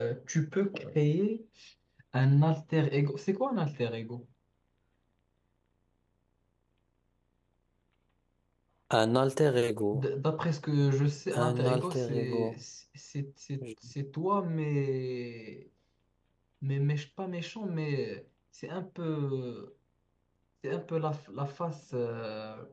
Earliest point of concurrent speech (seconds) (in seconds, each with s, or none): 11.3 s